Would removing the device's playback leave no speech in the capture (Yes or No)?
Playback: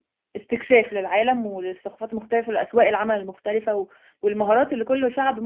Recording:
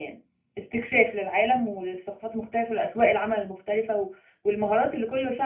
Yes